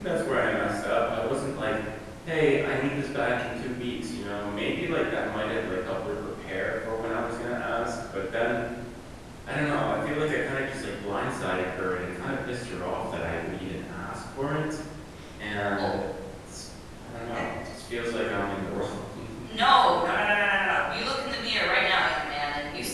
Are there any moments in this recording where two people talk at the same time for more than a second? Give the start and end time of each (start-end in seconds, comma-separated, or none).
none